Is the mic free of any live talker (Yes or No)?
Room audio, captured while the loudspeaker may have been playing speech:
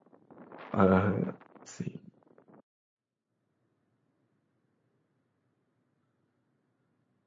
No